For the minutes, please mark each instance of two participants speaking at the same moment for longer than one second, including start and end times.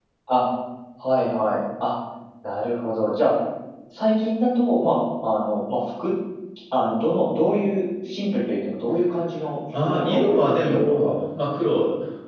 9.8-11.1

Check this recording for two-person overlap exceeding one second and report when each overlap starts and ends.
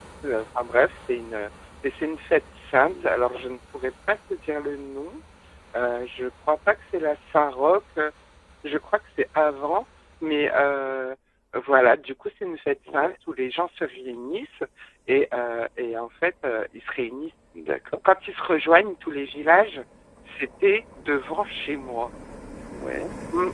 none

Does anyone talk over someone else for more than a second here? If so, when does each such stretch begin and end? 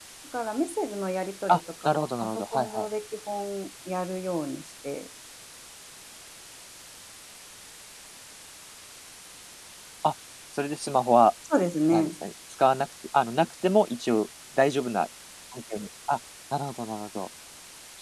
1.5-2.9

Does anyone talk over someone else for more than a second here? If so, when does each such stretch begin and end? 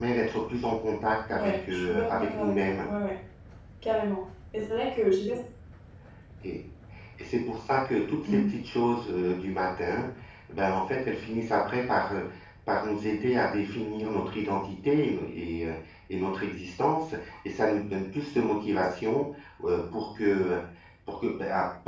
1.3-2.9

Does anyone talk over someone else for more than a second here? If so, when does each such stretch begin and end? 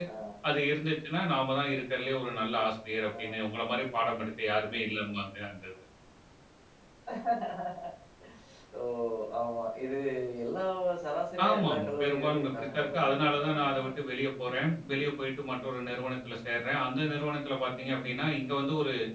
11.5-13.9

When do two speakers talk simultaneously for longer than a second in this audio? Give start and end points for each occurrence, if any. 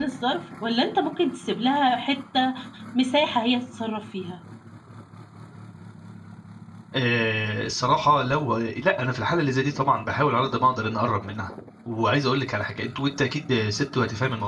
none

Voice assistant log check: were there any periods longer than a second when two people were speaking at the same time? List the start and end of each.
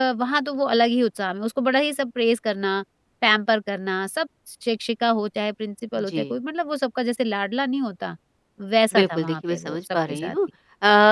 8.9-10.4

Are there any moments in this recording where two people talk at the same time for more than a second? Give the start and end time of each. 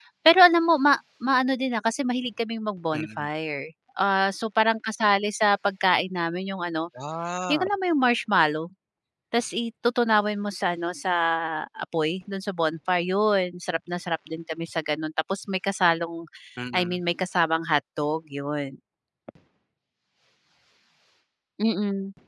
none

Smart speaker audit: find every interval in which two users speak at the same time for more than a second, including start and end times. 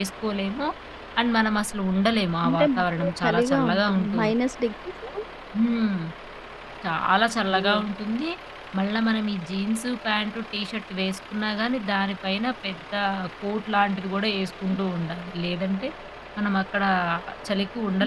2.4-4.2

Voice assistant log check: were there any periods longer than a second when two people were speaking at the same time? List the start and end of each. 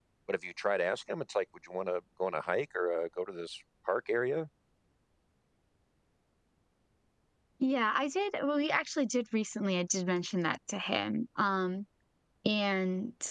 none

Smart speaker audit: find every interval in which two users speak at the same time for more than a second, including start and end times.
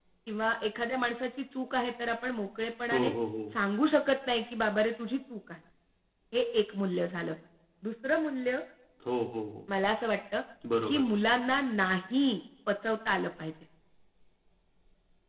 none

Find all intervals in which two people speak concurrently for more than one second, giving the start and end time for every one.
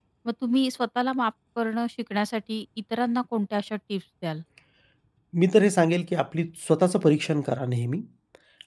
none

